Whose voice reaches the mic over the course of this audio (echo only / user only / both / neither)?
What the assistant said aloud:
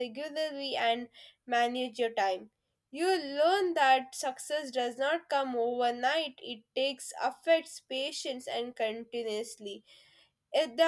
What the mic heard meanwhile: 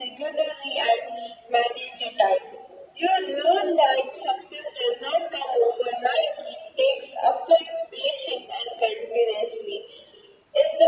echo only